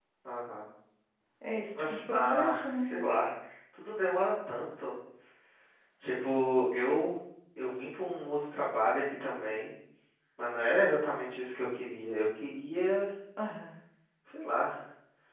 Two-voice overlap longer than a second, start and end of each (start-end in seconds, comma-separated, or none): 1.7-3.0